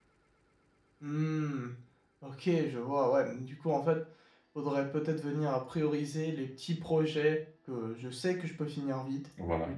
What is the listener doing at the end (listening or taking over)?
listening